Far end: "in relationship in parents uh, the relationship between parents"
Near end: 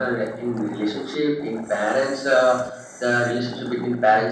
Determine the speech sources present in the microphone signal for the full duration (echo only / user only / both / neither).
echo only